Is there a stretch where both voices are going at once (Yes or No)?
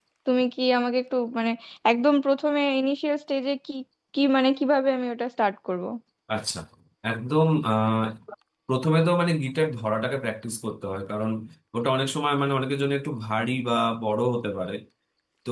No